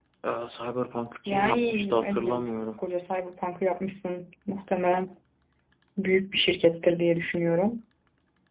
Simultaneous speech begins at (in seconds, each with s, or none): 1.3 s